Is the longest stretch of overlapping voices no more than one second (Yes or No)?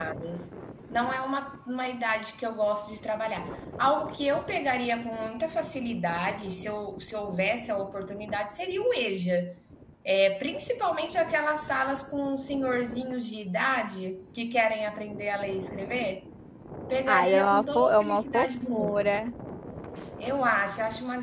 No